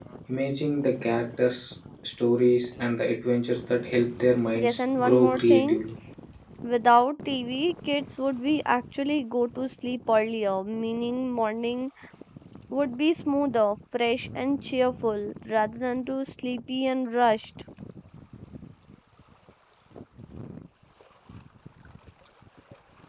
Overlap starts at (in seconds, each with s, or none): 4.5 s